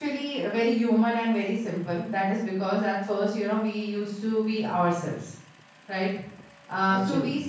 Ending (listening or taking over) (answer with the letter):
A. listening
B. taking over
A